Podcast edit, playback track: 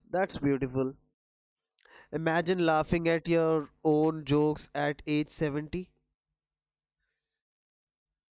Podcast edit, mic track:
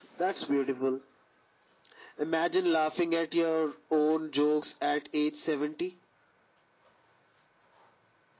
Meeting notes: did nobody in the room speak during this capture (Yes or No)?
Yes